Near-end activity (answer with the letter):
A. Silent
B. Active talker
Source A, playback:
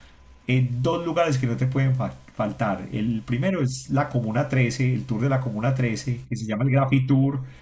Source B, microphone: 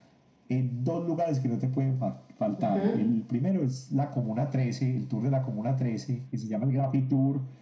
B